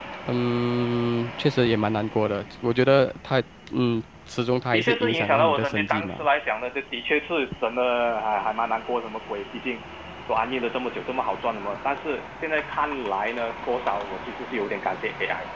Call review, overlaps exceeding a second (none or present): present